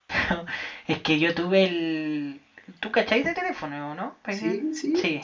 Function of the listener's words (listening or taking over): taking over